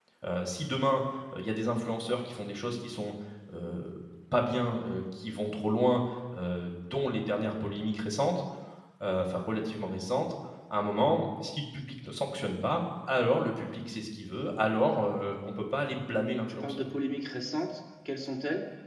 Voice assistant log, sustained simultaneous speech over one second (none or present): none